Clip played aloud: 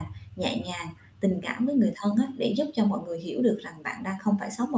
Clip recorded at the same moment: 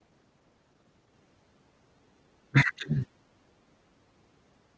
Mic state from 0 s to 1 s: neither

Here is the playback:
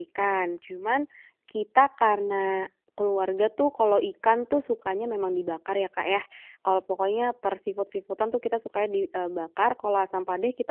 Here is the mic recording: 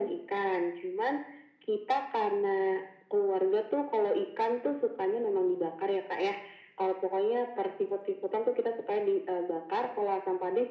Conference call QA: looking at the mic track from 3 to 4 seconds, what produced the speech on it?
echo only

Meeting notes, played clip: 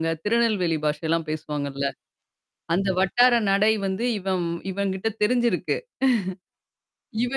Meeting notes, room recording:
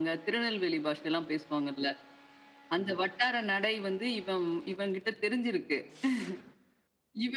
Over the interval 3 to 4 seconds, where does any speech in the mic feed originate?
echo only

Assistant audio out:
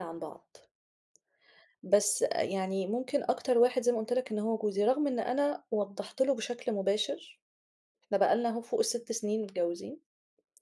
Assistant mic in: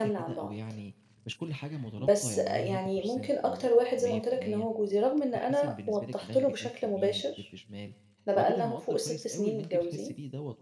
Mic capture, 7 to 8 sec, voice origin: both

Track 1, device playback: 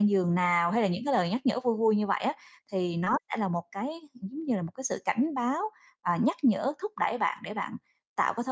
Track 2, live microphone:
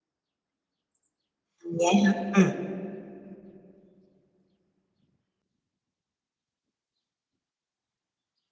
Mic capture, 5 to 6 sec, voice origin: neither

